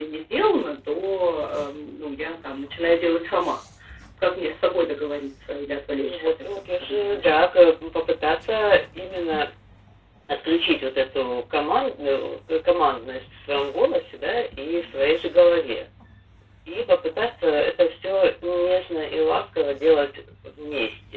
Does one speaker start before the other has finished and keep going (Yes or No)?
Yes